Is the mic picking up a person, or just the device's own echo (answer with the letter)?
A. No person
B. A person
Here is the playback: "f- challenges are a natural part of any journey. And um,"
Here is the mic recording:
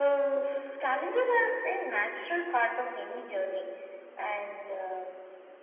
A